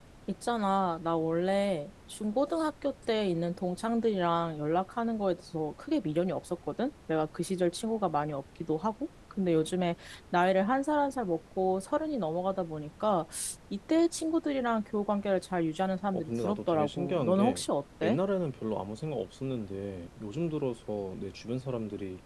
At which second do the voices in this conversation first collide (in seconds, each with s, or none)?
16.1 s